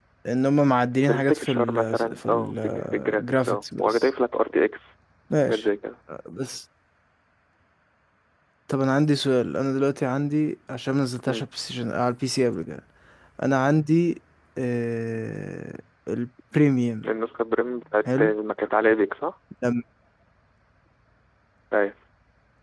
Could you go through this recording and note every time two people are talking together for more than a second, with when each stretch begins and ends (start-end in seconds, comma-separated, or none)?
1.1-4.1